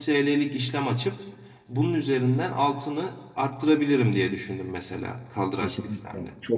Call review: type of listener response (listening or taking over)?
taking over